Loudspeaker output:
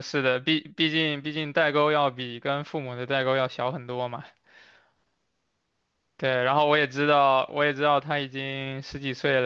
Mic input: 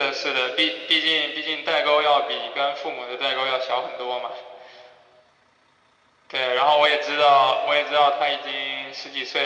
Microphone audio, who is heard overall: echo only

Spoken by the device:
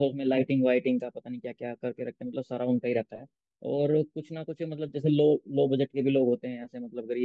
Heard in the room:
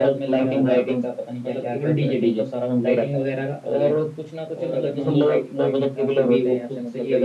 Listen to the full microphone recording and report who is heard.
both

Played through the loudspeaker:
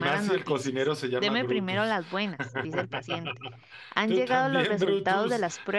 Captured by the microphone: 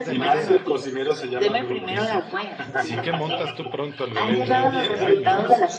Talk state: both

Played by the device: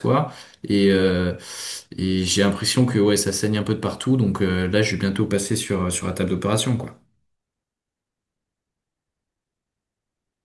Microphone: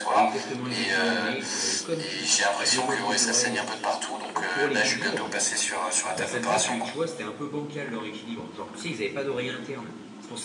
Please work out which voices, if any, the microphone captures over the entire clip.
both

